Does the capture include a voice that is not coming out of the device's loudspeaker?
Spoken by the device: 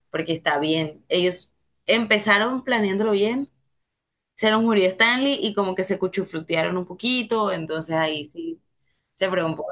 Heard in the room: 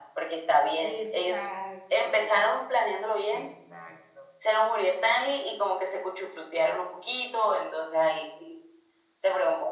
Yes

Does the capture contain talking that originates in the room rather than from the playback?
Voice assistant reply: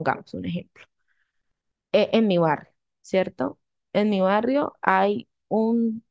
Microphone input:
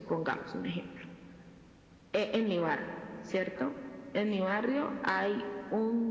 No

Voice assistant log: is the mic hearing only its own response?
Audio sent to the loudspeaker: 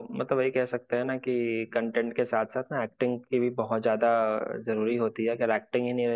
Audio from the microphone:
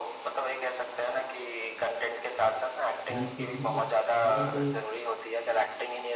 No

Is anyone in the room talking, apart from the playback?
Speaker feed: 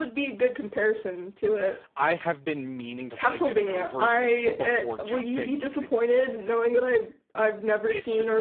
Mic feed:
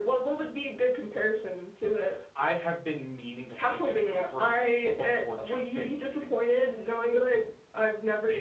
No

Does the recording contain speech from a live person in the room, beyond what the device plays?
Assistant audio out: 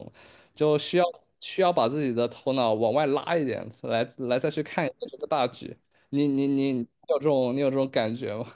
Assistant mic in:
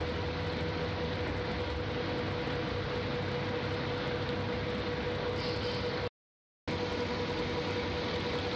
No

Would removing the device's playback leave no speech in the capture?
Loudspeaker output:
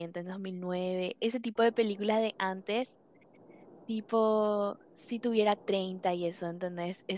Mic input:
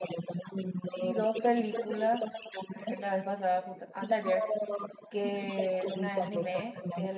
No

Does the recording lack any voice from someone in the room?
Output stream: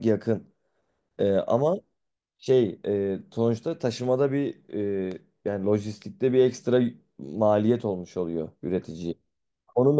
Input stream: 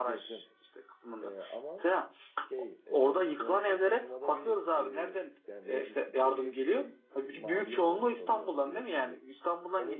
No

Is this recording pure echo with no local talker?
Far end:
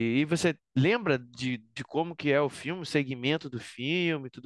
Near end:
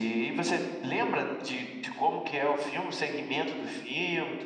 Yes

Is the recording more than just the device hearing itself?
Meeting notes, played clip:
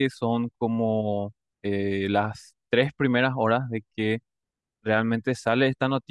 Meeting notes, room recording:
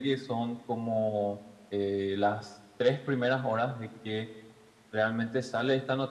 No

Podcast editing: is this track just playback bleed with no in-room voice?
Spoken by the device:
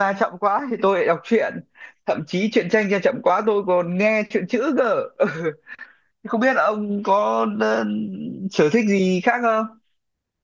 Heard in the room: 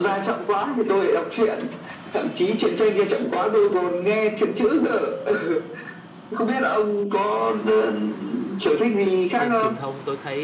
No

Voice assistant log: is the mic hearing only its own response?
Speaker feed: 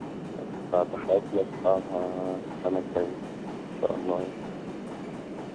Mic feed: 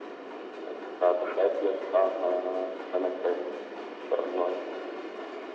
Yes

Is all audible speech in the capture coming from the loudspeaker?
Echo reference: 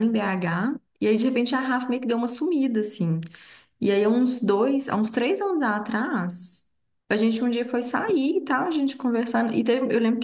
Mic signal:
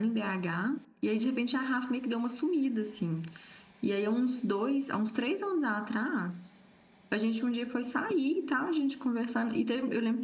Yes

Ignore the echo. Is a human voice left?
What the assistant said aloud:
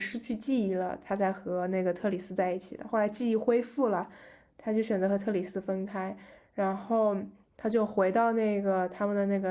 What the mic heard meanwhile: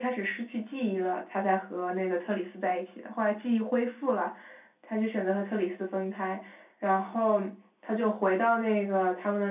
No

